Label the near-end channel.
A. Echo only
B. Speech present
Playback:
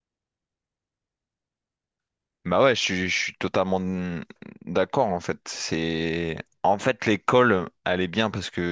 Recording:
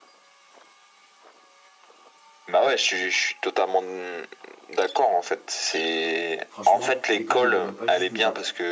B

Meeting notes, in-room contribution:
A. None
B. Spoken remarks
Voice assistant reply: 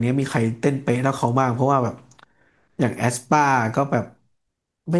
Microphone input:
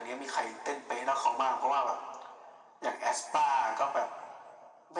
A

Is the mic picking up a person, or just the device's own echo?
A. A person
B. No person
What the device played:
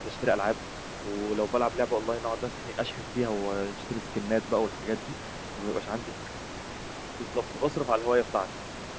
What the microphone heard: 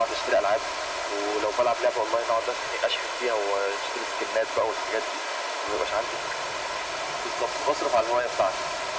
B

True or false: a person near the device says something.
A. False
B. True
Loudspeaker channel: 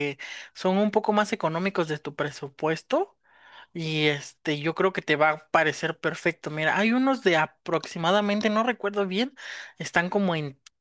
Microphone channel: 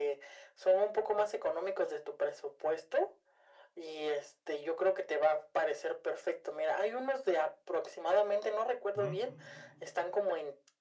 B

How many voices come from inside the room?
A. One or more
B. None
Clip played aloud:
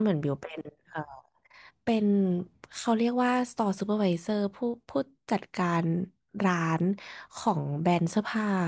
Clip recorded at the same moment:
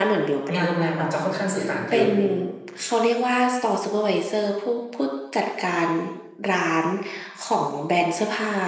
A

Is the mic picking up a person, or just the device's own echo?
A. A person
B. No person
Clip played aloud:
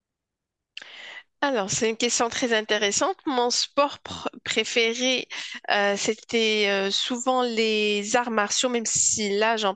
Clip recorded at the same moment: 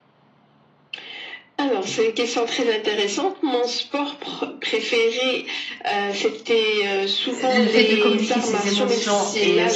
A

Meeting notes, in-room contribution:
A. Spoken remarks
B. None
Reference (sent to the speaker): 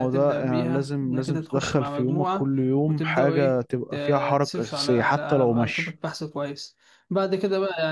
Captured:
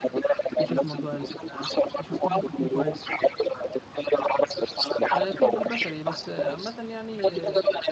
A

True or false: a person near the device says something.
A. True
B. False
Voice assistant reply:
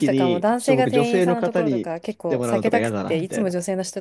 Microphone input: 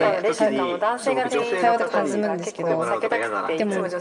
A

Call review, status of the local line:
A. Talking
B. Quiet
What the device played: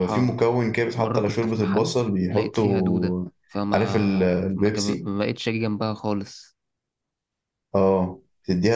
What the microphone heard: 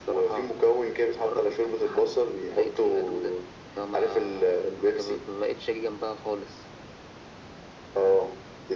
B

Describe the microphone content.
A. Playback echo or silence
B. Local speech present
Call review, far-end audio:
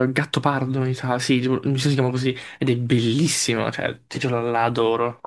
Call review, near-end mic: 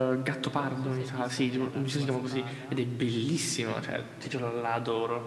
B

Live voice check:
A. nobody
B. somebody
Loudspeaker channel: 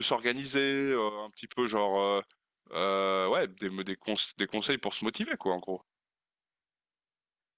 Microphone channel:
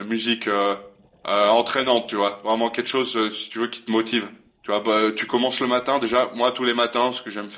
B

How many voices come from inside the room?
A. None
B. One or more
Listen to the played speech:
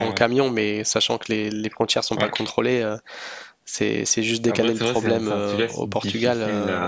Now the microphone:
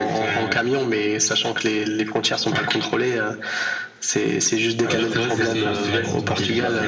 B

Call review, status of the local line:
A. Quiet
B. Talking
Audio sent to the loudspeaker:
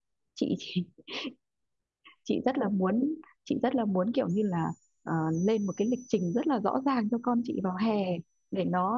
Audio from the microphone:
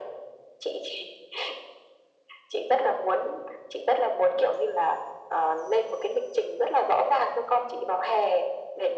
A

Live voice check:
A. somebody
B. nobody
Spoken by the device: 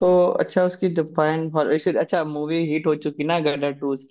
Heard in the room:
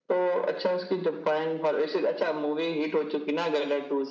B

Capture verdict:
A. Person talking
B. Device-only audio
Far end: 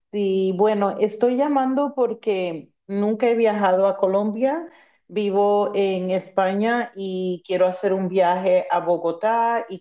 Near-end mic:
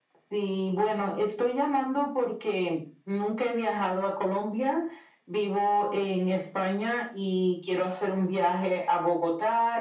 B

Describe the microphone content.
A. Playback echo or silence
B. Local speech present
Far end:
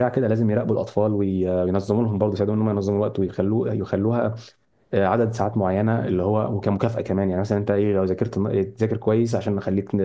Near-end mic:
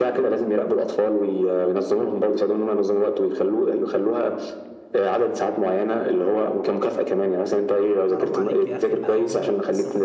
B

